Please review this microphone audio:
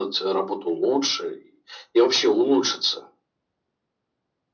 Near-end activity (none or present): none